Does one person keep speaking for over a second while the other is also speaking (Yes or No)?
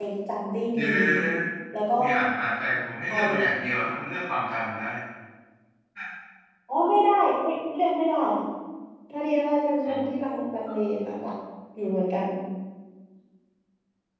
No